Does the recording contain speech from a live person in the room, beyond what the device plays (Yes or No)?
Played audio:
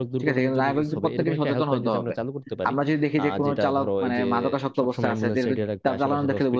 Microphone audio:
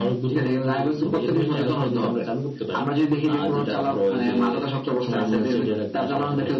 No